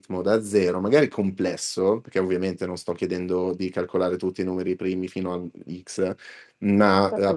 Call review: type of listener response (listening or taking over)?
listening